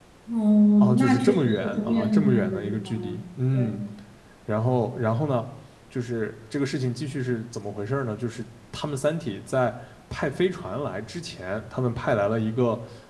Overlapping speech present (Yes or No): Yes